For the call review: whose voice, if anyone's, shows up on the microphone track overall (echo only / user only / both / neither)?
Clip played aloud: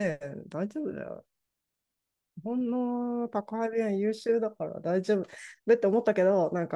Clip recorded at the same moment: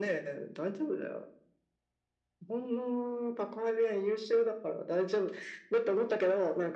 echo only